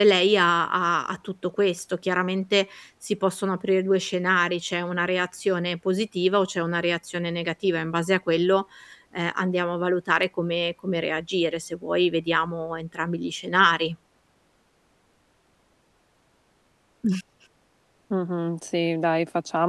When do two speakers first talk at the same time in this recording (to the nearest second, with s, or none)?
none